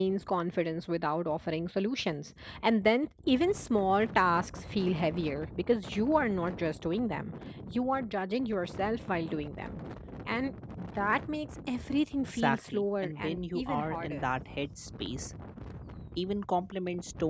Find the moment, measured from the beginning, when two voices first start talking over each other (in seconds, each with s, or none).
12.4 s